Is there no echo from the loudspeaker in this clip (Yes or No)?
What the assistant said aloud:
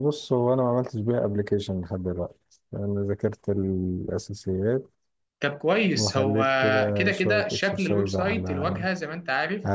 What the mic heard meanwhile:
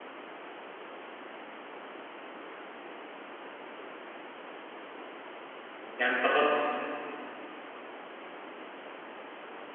Yes